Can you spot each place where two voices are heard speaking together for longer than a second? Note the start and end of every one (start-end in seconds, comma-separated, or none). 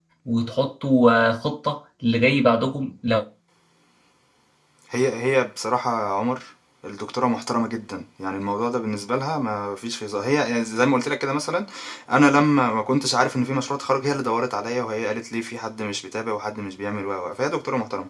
none